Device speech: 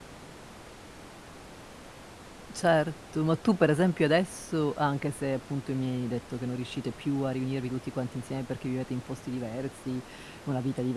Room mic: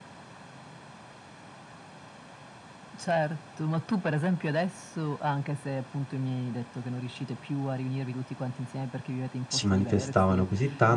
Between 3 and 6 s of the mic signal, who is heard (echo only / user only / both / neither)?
echo only